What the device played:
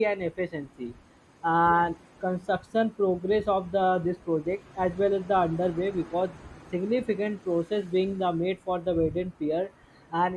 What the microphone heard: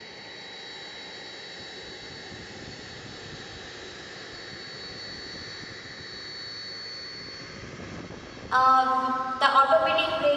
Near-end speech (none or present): present